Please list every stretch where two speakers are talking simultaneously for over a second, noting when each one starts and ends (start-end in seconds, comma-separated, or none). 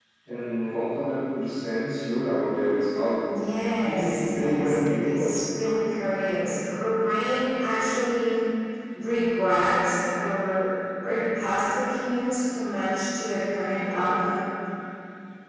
3.8-5.3